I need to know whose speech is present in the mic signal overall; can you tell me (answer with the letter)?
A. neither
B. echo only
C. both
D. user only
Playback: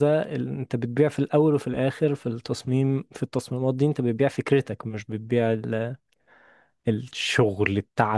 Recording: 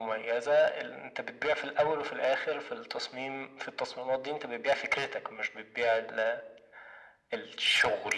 B